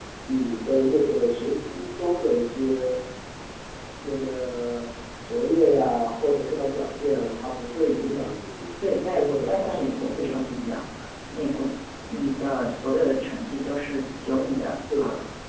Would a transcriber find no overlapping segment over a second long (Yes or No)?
No